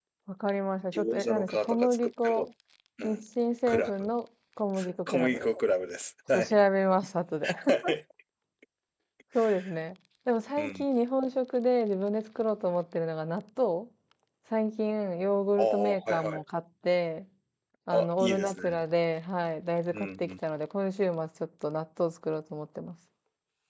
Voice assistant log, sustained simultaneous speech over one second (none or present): present